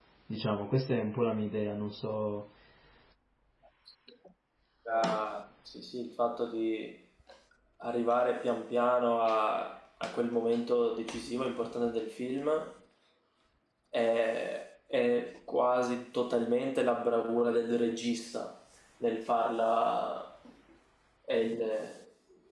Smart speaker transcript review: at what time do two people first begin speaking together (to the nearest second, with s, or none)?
none